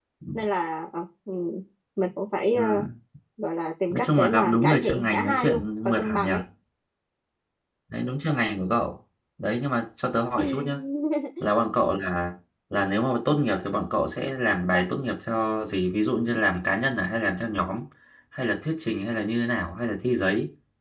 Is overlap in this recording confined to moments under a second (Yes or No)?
No